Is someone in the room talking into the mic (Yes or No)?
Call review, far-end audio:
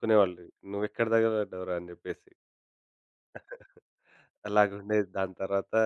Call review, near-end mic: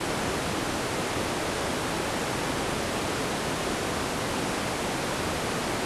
No